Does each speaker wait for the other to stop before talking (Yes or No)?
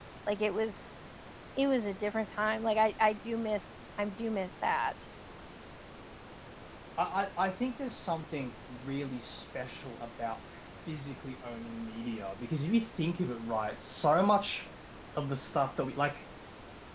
Yes